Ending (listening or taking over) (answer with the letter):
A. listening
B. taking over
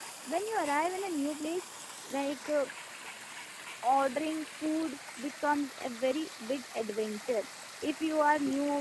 A